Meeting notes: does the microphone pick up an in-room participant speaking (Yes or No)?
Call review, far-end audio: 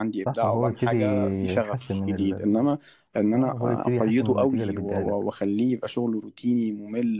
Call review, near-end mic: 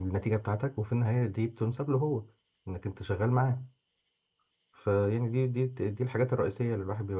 Yes